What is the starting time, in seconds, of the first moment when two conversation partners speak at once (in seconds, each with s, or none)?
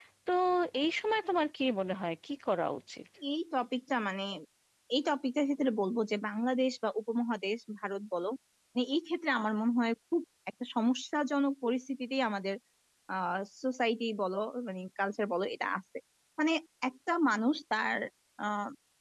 none